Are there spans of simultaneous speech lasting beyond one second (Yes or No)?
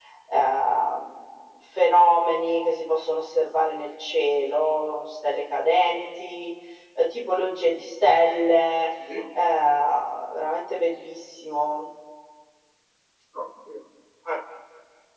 No